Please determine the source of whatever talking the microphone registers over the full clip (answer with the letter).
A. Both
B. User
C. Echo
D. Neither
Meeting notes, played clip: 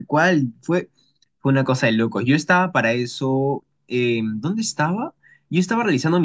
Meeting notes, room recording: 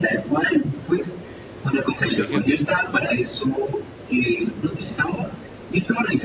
A